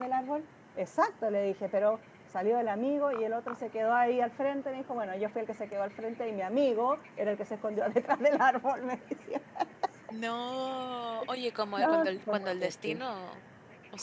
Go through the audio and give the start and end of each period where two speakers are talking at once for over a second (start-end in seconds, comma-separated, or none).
11.8-13.0